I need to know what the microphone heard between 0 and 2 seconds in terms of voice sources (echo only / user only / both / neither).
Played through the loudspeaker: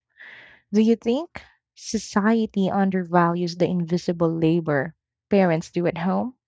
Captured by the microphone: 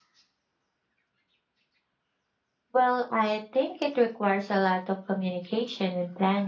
neither